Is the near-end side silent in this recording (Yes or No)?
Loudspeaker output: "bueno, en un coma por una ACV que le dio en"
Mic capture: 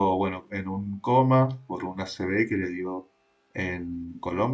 Yes